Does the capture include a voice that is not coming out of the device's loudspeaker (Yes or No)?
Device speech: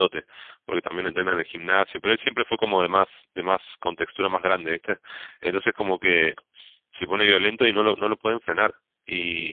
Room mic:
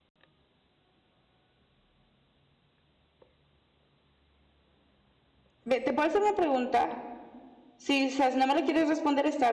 Yes